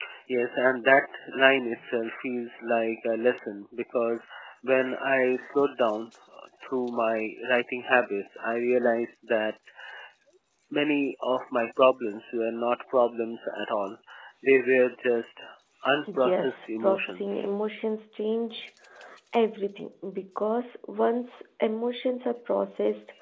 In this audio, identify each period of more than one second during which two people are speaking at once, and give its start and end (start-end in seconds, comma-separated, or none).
16.2-17.4